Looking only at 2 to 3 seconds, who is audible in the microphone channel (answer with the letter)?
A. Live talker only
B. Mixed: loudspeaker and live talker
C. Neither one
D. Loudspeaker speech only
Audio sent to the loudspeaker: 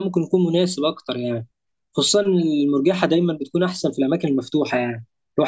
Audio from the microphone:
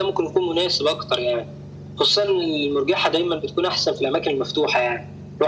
D